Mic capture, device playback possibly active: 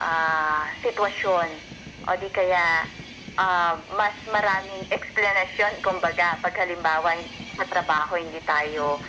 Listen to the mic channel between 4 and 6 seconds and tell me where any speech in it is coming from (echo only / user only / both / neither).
echo only